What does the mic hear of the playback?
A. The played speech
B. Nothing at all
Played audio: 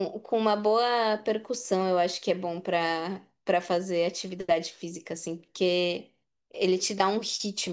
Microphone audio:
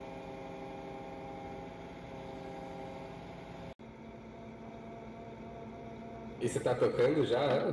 B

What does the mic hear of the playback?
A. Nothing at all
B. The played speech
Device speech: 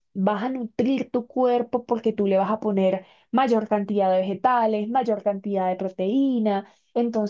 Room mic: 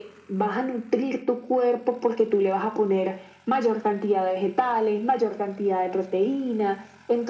B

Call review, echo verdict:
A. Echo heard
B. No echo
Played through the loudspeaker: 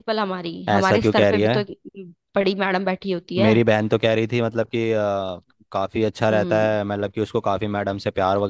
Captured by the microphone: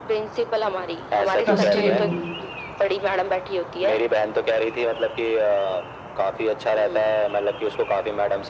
A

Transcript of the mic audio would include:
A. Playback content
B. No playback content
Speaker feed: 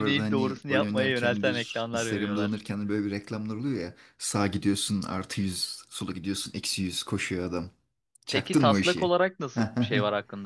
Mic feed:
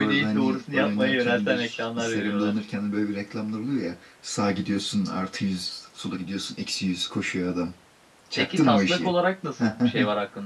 A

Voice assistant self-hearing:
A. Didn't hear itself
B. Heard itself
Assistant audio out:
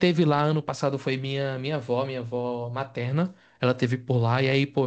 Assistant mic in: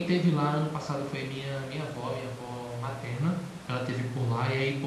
B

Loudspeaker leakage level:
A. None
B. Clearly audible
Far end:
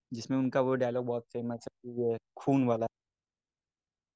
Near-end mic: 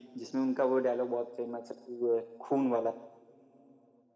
B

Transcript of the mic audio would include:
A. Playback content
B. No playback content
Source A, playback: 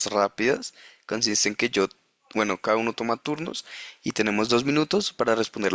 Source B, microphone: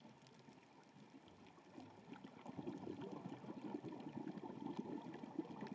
B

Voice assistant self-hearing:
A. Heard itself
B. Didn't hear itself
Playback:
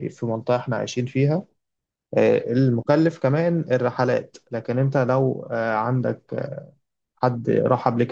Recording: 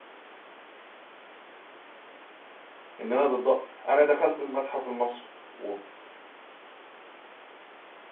B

